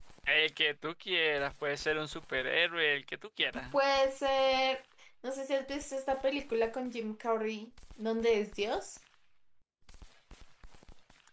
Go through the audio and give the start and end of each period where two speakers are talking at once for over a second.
none

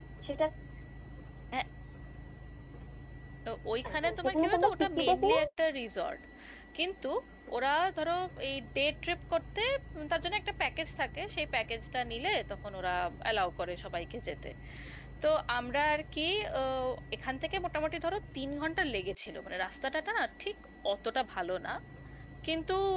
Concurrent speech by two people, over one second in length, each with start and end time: 3.9-5.4

